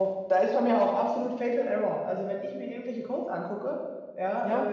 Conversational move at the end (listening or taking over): listening